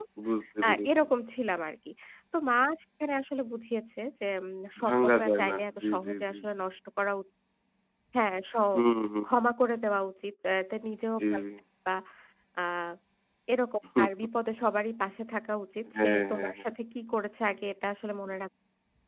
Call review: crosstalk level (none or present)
present